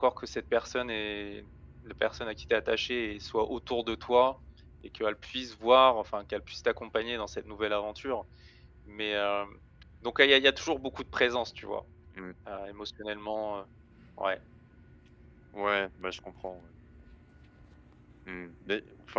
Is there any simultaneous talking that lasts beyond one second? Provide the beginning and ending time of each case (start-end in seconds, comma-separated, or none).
none